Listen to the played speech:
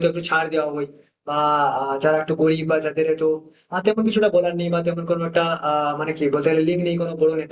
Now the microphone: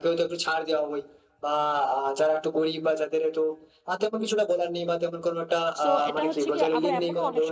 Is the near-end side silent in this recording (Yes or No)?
No